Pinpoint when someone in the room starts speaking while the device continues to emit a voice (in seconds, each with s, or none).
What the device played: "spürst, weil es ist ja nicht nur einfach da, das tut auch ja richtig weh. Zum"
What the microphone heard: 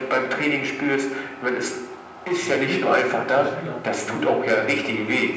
2.4 s